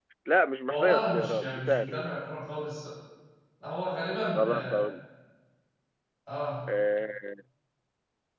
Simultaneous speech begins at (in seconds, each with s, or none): 0.7 s